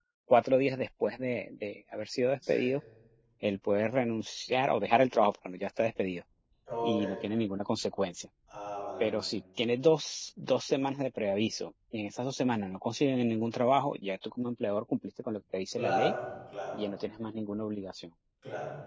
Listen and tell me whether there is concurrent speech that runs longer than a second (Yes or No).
No